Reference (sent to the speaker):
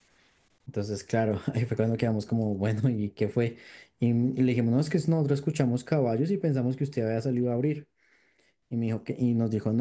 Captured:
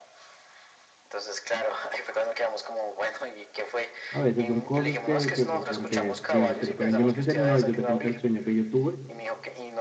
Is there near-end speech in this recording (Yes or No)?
Yes